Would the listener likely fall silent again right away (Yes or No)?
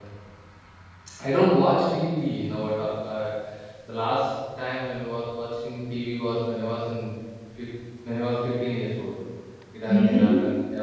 Yes